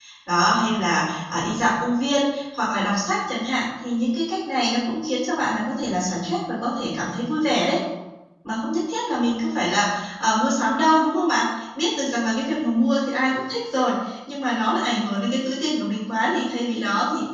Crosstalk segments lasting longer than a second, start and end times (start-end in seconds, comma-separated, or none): none